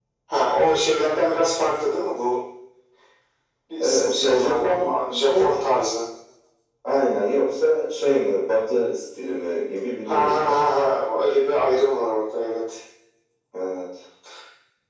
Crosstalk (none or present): present